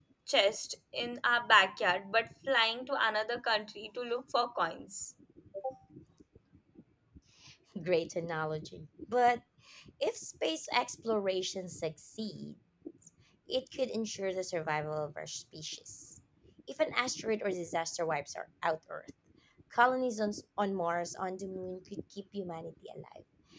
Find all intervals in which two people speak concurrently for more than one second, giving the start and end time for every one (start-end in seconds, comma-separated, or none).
none